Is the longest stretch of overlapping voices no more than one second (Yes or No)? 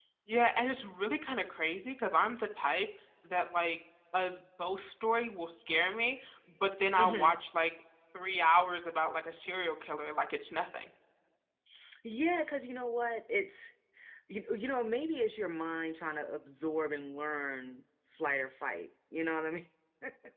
Yes